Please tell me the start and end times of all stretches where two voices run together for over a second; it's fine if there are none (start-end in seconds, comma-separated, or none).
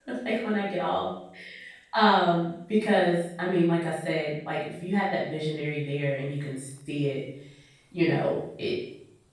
none